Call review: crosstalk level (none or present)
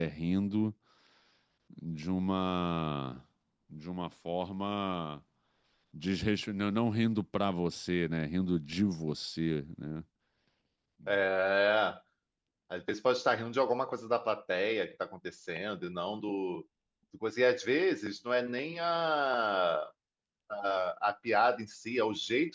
none